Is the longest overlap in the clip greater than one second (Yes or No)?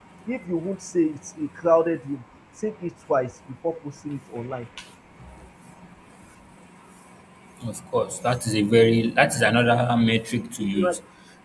No